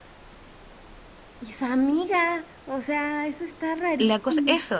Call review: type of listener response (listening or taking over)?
taking over